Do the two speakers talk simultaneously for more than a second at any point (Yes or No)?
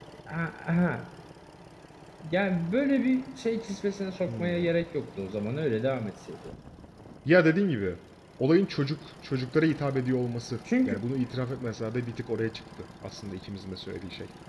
No